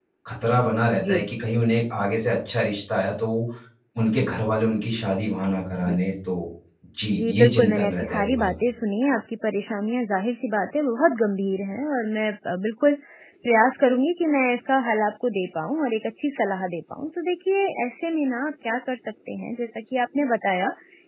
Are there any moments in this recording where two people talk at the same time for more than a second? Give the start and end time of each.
7.1-8.5

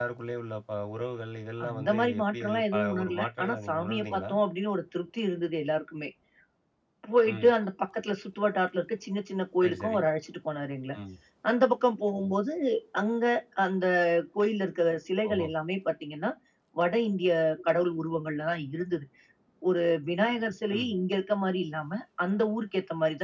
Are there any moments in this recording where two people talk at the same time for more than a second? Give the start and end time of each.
1.7-4.3

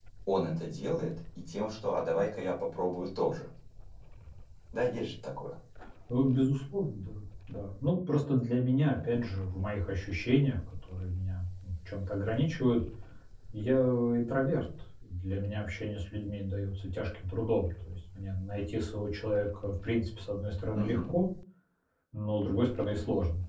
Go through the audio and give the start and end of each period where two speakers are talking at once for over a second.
none

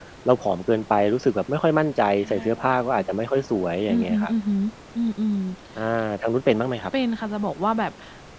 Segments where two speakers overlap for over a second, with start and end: none

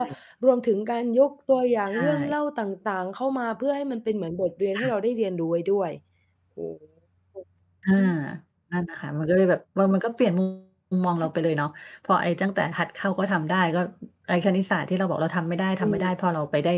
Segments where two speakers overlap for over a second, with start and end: none

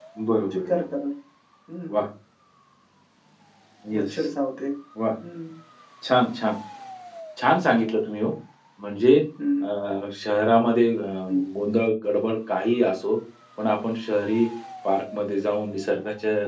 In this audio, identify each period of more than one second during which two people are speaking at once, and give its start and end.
none

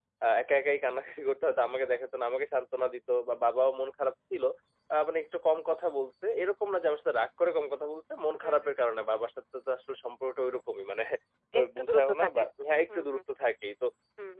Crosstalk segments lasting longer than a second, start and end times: 11.6-13.0

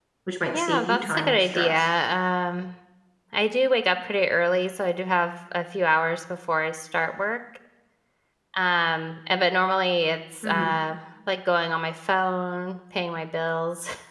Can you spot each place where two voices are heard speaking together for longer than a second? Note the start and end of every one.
0.5-1.9

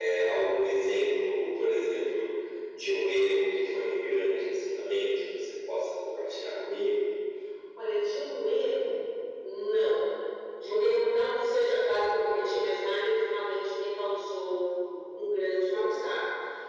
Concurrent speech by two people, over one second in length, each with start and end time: none

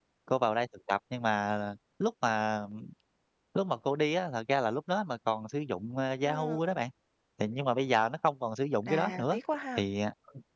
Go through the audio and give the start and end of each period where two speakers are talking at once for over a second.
none

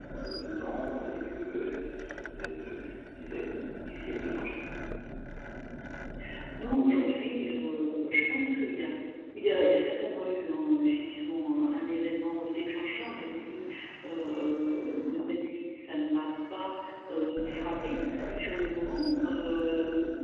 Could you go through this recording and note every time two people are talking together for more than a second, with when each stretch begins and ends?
none

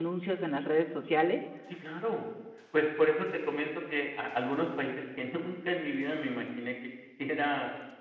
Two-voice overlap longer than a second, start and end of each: none

